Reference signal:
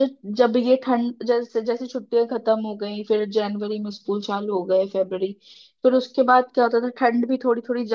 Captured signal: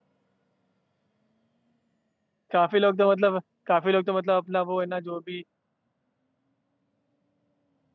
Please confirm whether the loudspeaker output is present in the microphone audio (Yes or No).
No